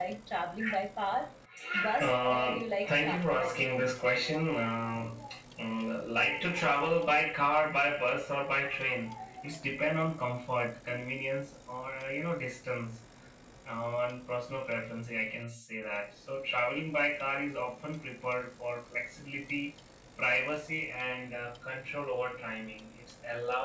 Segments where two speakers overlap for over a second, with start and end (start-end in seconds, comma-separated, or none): 2.0-3.8